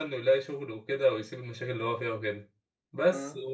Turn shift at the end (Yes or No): No